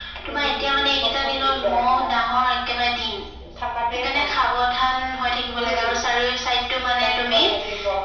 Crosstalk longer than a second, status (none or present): present